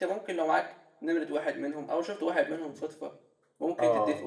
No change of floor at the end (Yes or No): Yes